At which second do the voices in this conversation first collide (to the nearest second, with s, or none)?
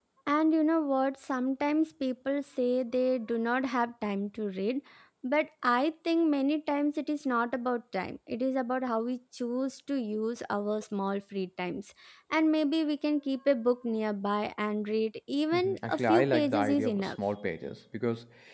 16 s